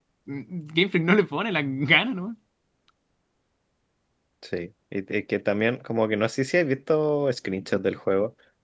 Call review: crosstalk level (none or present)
none